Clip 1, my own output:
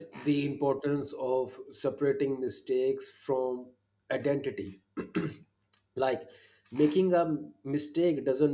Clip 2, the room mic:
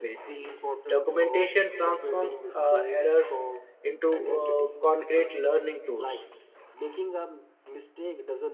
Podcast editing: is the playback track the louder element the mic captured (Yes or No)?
No